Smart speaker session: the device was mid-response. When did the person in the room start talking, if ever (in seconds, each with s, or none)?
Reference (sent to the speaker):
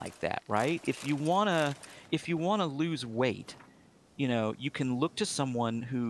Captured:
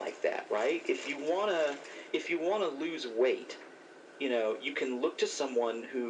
none